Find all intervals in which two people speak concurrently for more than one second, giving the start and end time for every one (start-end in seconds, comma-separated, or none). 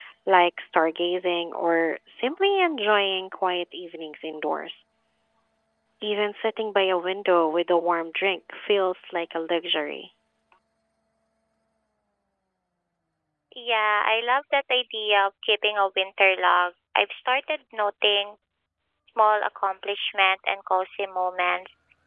none